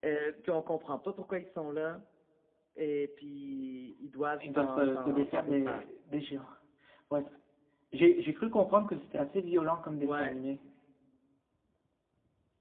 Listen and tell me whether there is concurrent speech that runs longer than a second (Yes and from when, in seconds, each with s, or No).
Yes, from 4.4 s